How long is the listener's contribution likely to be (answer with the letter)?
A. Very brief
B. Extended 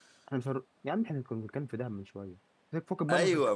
B